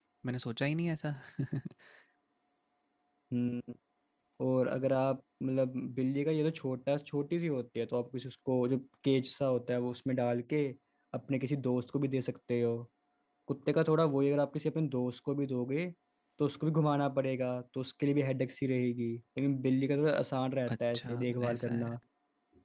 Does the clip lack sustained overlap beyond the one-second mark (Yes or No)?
No